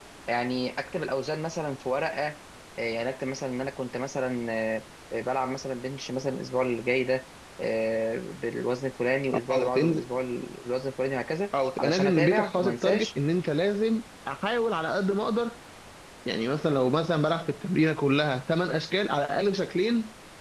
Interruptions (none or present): present